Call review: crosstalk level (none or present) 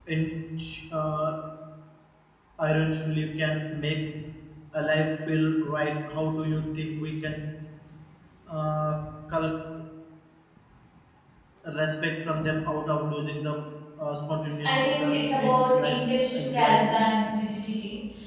present